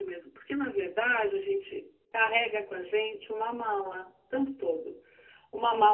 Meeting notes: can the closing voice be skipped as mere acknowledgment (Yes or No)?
Yes